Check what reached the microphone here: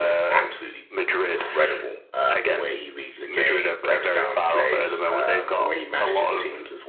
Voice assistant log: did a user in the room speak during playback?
Yes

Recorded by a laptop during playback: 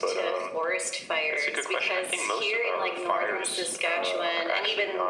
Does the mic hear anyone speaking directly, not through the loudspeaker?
No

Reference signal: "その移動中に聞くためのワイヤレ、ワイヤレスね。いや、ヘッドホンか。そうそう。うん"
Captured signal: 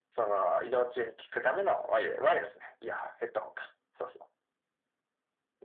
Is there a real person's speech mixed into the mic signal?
No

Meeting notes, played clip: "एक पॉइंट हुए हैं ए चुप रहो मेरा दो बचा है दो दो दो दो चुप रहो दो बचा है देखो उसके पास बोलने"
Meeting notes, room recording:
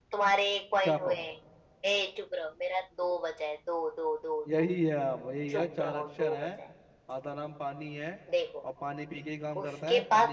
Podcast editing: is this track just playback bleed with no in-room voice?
No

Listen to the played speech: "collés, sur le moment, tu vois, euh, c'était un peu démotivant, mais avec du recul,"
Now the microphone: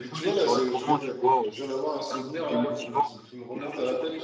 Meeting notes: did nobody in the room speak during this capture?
No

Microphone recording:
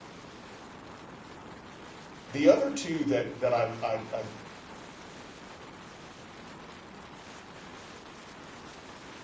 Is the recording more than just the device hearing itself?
Yes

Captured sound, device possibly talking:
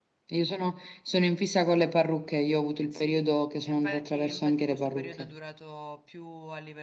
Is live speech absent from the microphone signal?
No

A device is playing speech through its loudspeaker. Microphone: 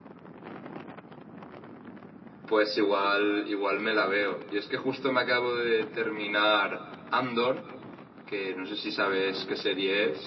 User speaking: Yes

